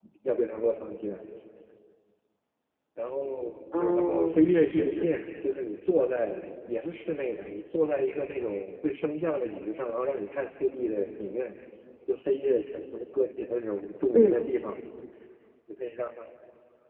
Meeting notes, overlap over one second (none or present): present